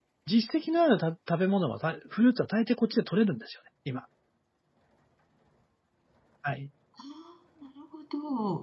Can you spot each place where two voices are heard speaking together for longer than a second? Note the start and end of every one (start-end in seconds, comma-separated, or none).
none